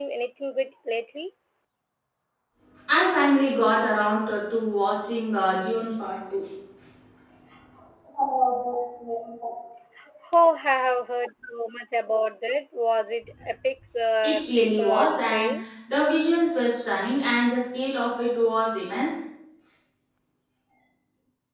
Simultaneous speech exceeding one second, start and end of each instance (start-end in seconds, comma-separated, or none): 14.2-15.6